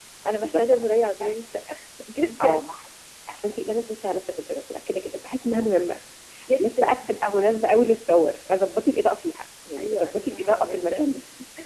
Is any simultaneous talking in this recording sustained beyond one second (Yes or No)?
Yes